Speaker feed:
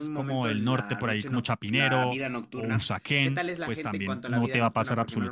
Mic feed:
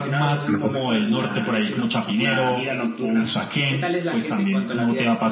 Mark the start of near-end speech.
0.5 s

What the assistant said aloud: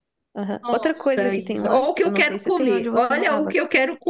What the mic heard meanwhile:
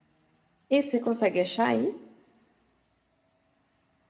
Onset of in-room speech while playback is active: 0.7 s

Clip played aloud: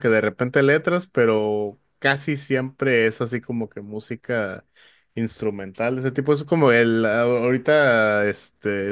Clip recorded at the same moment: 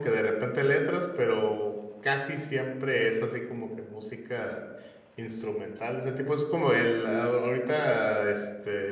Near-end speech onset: none

